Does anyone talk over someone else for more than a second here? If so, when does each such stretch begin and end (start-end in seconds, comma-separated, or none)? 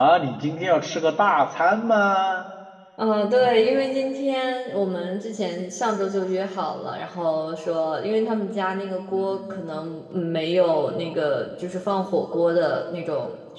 none